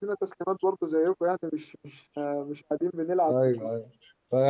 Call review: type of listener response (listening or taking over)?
taking over